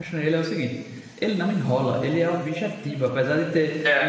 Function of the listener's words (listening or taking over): listening